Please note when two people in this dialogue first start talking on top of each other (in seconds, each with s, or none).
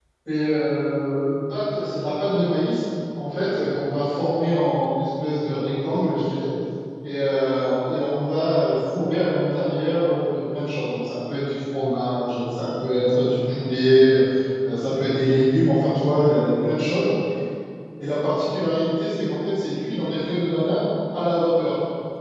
none